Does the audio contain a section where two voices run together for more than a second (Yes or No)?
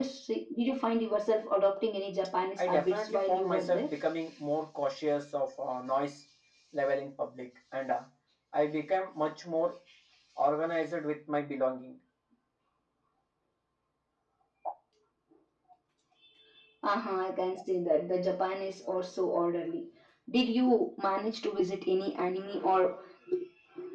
Yes